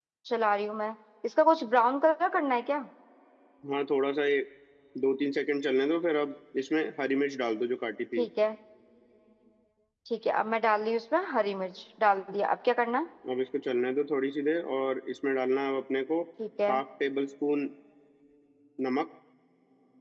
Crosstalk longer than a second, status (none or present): none